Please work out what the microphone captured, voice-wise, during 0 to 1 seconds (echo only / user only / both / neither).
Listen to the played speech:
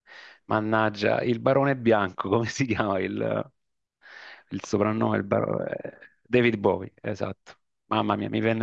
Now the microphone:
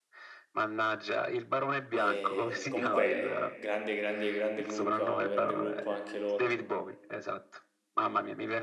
echo only